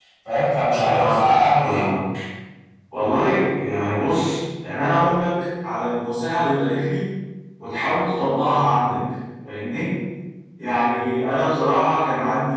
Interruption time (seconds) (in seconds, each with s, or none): 0.7 s